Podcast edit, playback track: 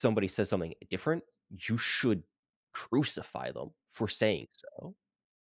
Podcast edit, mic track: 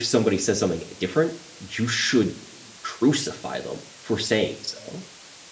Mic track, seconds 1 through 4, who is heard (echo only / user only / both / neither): echo only